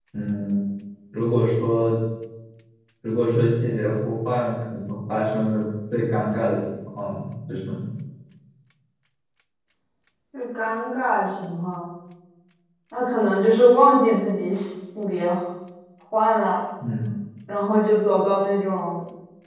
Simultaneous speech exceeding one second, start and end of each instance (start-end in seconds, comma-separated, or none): none